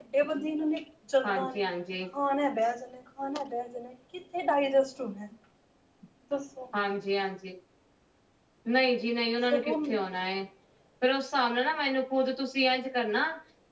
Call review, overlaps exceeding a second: none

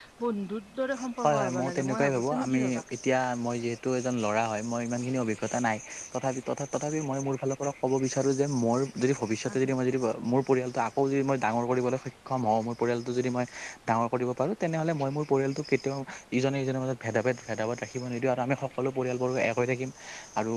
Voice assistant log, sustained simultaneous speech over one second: present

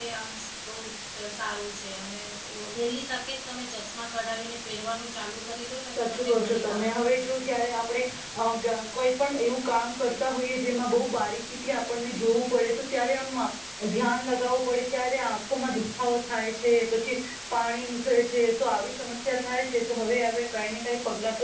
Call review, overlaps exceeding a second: present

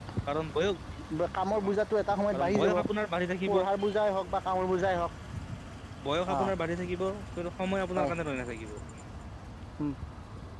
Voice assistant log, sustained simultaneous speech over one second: none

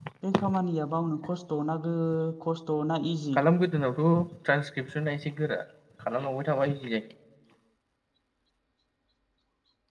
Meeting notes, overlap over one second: none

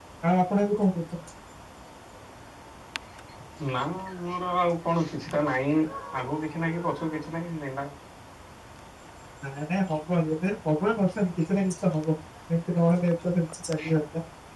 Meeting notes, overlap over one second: none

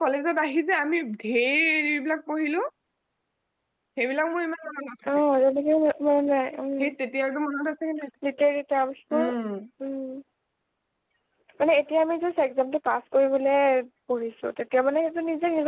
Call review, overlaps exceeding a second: none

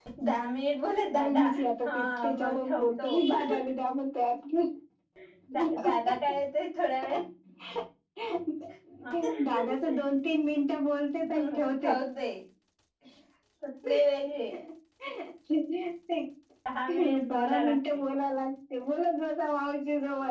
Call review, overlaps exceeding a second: present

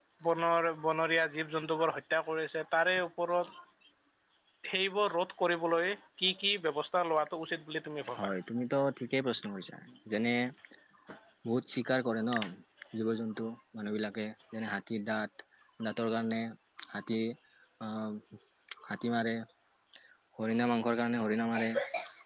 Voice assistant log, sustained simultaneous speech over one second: none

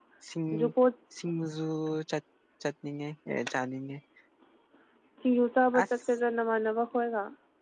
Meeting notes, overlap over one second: none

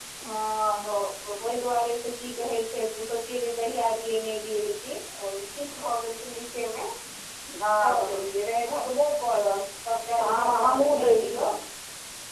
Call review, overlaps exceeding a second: present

